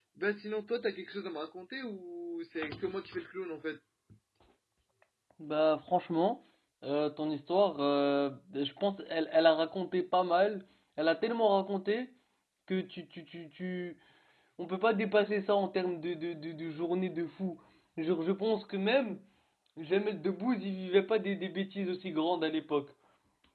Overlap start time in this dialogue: none

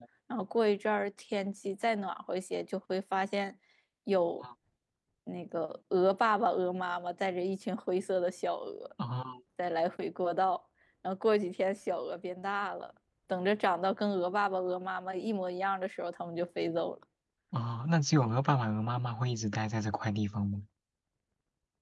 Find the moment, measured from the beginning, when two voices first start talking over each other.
none

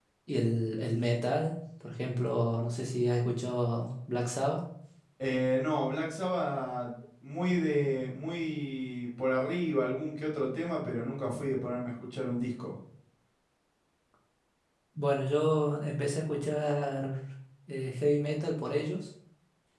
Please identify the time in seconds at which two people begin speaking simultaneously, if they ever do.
none

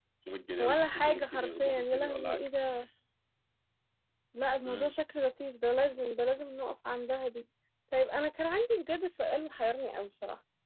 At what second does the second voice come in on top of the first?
0.6 s

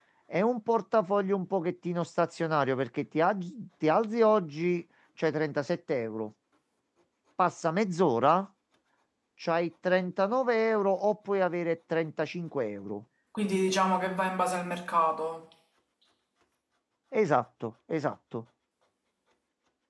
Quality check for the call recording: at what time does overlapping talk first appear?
none

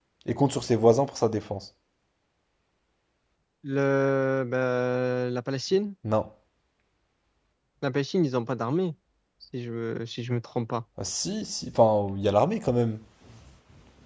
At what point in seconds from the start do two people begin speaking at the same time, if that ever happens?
none

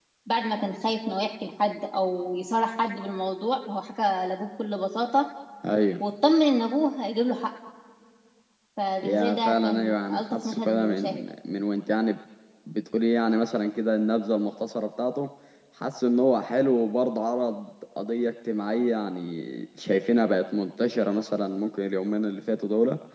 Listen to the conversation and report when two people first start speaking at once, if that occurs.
9.0 s

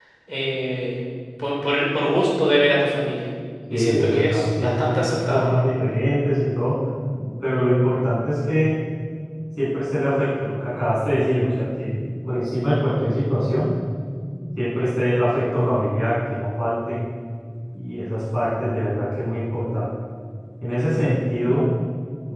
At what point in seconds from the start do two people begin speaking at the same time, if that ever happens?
3.7 s

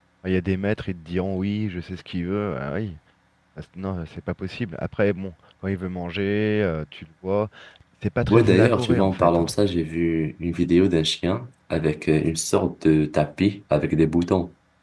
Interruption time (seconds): 8.3 s

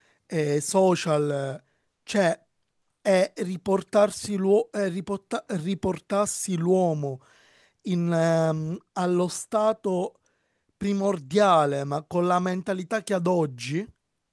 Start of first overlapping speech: none

